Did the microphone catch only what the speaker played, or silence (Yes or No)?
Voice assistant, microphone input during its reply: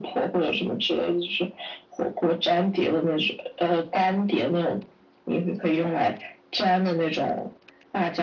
Yes